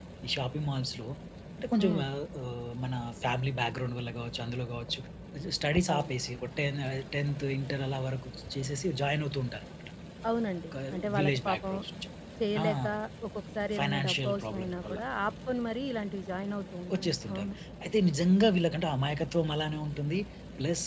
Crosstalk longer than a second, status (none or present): present